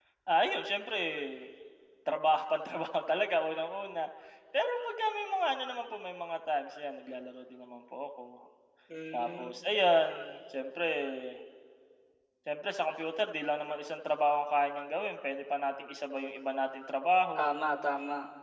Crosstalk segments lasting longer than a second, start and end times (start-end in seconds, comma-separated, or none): none